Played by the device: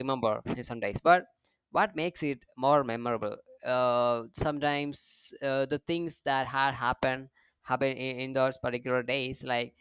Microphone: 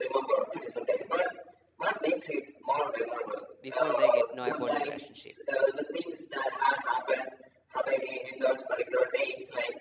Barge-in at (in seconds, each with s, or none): 3.6 s